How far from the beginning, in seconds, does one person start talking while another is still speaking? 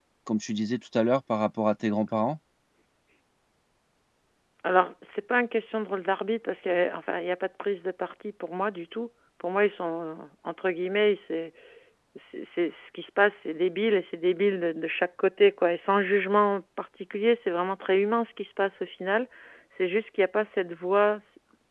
none

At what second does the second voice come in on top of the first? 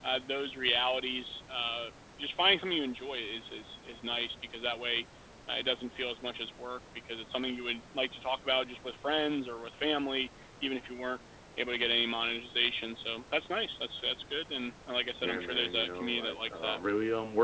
15.2 s

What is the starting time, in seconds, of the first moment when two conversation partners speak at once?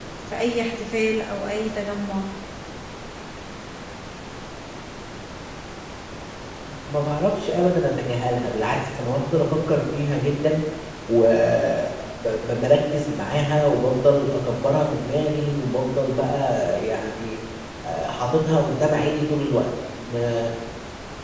none

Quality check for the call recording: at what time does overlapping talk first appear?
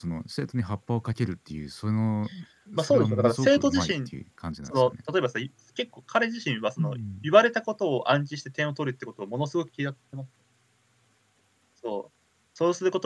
2.8 s

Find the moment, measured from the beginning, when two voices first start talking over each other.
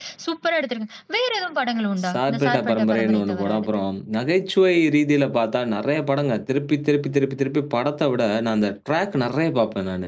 2.0 s

